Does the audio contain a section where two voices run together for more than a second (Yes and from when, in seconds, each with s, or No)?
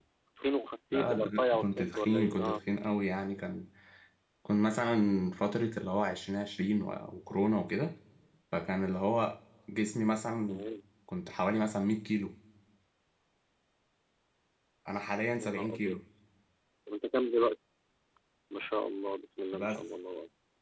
Yes, from 0.9 s